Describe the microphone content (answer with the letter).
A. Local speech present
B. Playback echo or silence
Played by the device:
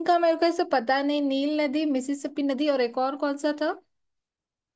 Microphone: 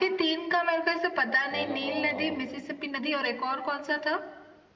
A